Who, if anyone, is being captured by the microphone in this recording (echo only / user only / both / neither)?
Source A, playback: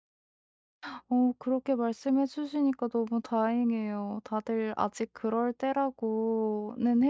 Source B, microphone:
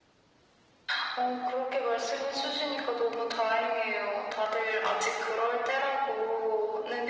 echo only